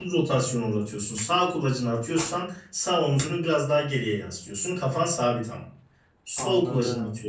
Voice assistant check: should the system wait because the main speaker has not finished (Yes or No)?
Yes